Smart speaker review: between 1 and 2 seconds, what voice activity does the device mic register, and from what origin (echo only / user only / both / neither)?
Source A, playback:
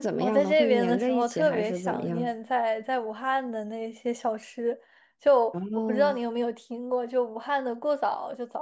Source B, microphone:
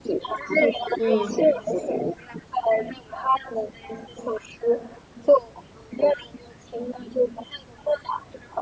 both